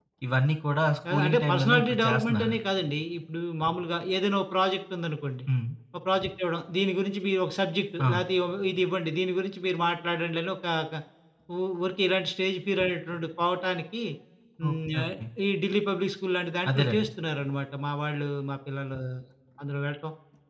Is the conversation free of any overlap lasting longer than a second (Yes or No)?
No